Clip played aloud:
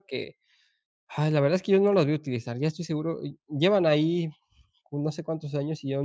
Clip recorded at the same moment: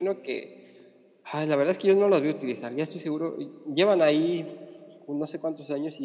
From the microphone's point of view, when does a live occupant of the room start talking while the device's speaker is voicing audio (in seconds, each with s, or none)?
none